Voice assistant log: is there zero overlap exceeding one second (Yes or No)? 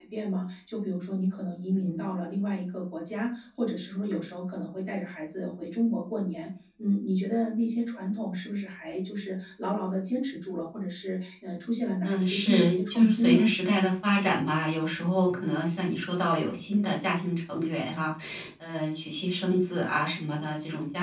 No